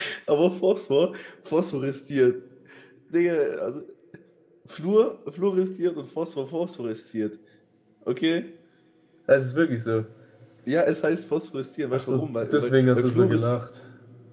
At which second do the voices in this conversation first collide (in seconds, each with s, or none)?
11.9 s